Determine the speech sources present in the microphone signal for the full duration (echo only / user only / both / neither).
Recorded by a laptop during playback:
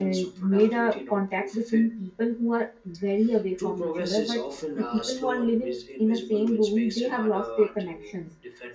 both